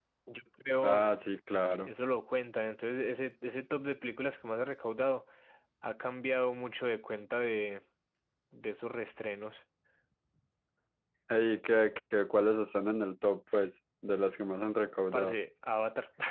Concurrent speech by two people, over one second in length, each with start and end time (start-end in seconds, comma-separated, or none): none